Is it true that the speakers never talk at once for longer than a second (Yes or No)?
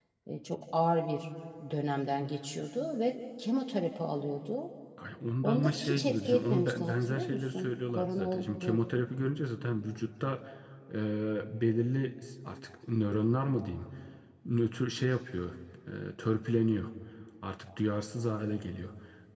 No